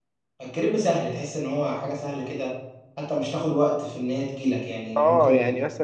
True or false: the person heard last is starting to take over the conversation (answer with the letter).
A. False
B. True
B